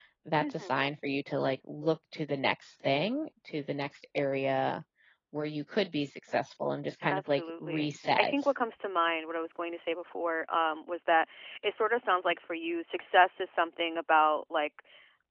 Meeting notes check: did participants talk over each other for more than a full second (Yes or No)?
Yes